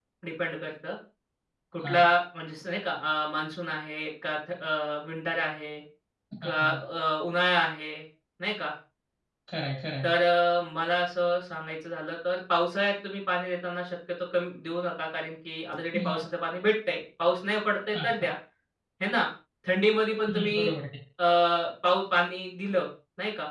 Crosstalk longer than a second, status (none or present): none